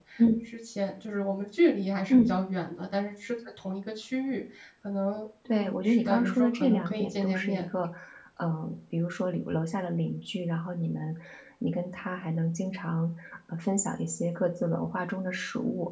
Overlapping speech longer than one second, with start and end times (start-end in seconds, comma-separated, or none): 5.5-7.7